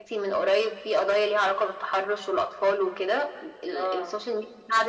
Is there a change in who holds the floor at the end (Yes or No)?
No